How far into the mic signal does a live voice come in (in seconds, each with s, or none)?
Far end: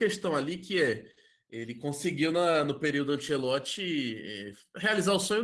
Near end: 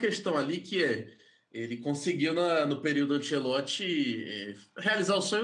none